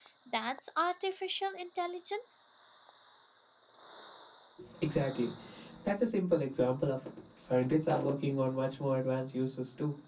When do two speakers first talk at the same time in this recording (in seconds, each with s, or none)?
none